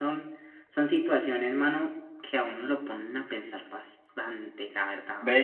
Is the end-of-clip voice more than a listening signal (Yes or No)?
Yes